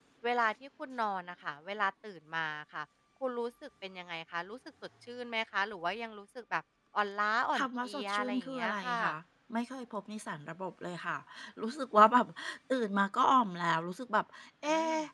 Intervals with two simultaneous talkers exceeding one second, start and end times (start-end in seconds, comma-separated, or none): 7.6-9.0